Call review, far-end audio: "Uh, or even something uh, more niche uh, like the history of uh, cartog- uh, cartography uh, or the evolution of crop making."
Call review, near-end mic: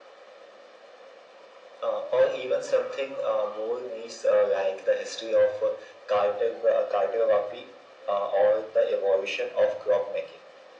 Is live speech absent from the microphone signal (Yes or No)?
Yes